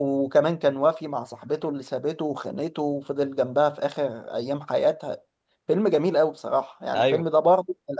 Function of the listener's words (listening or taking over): listening